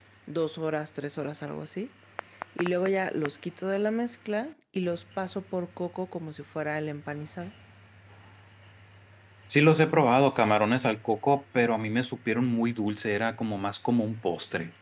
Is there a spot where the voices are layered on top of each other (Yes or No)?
No